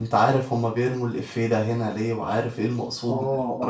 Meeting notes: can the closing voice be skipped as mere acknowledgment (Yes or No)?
No